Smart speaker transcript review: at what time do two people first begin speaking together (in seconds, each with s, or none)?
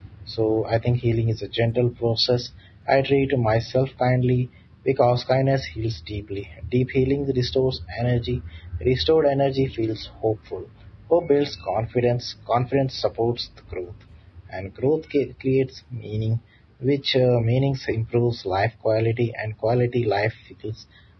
none